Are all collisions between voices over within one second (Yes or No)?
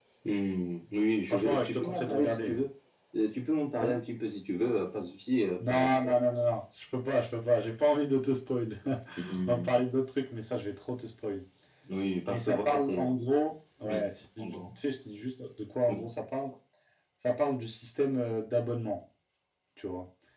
No